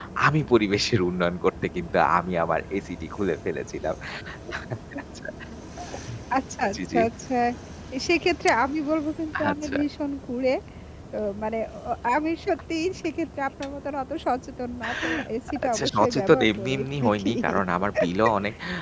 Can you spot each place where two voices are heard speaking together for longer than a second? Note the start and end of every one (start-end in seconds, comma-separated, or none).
15.6-17.3